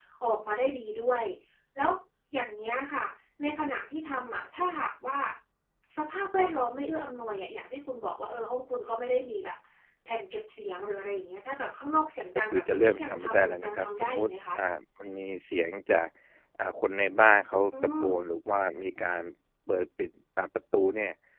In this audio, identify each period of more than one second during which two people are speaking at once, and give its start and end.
12.5-14.6

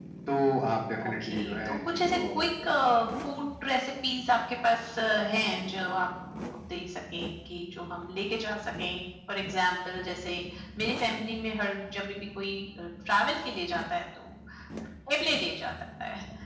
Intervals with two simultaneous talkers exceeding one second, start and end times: 1.1-2.7

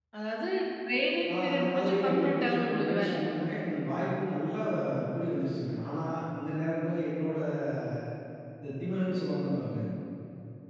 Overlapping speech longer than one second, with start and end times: 1.3-3.1

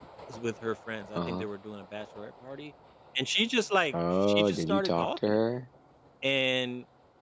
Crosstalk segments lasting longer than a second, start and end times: 3.9-5.4

